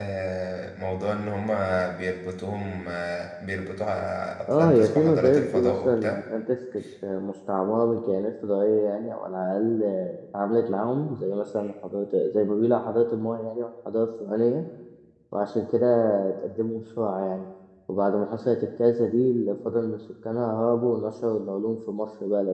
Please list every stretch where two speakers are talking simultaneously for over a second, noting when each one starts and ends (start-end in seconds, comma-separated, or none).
4.5-6.2